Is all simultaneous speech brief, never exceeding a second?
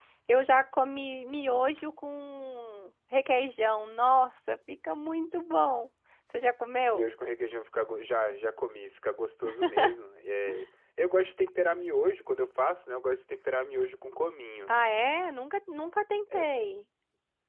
Yes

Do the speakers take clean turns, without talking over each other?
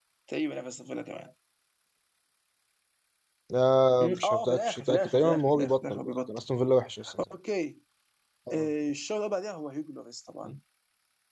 No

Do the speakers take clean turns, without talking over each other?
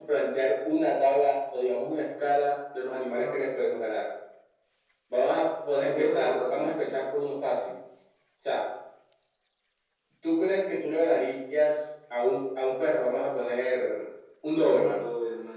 No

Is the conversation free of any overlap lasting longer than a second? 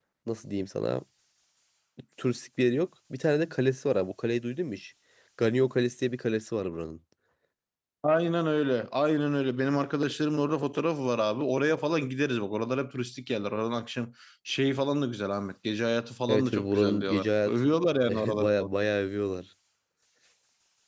No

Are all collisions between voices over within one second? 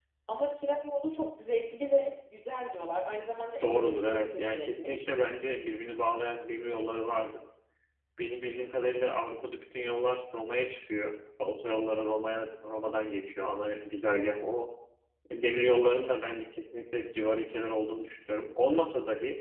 No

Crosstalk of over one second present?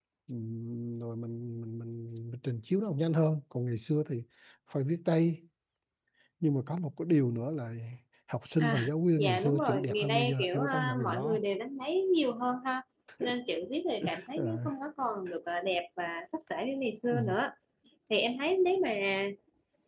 Yes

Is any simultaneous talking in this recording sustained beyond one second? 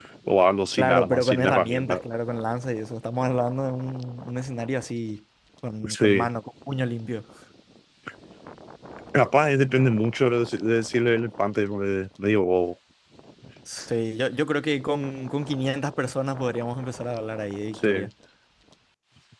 Yes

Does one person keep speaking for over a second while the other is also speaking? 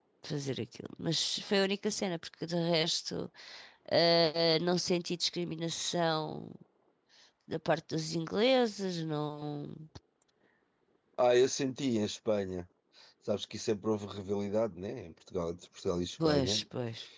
No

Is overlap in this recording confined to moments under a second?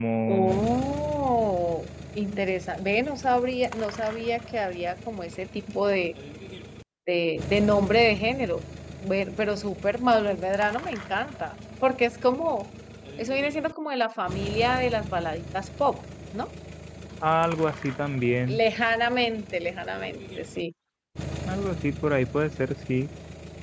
Yes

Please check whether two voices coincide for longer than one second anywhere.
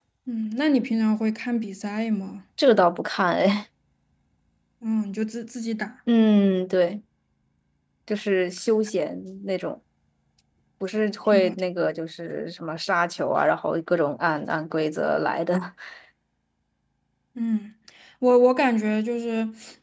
No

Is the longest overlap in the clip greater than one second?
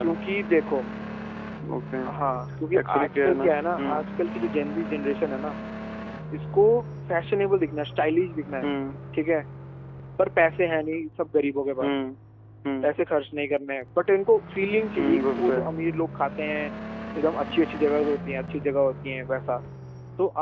Yes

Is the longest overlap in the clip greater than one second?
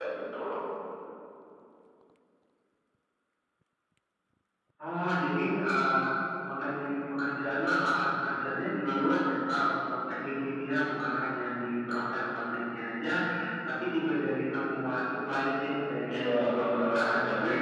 Yes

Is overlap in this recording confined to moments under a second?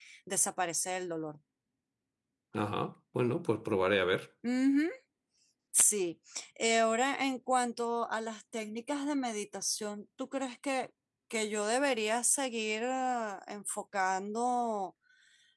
Yes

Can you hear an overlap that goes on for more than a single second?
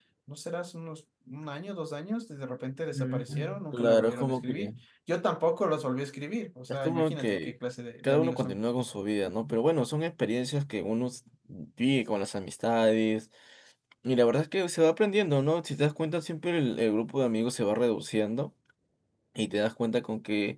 Yes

